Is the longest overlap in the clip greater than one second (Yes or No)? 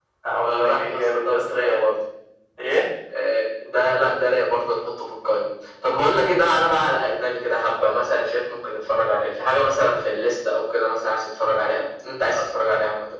Yes